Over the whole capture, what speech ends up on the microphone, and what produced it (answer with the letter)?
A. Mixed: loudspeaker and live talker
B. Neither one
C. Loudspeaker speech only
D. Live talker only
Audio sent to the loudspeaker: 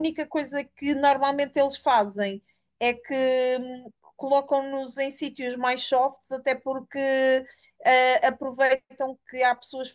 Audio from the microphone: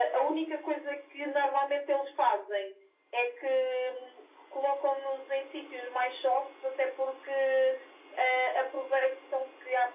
C